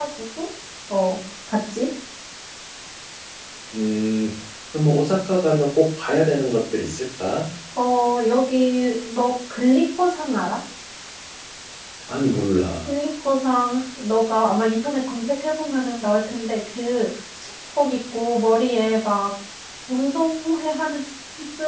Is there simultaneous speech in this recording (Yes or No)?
No